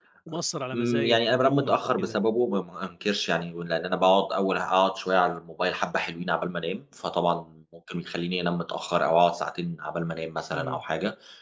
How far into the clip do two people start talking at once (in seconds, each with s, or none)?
0.7 s